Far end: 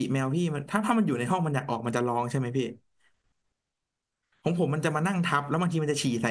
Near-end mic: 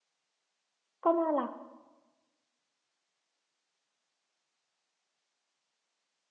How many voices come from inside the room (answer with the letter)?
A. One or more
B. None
A